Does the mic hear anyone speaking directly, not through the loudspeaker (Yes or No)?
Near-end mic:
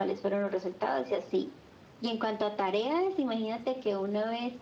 No